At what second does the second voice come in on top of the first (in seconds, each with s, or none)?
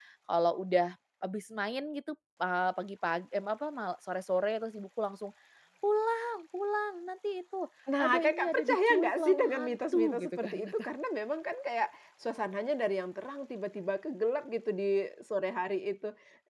8.0 s